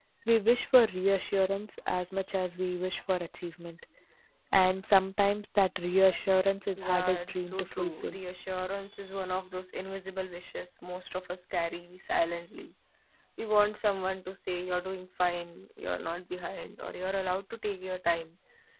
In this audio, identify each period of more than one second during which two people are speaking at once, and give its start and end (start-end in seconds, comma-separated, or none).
6.8-8.2